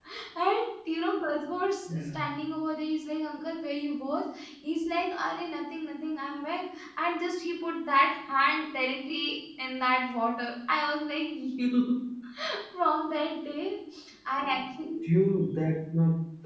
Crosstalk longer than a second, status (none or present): none